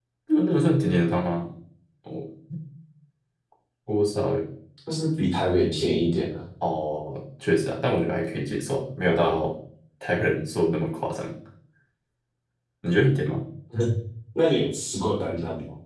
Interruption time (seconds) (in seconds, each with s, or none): none